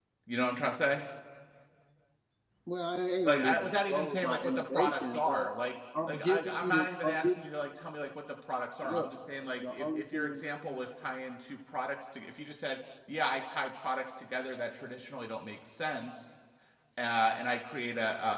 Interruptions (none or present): present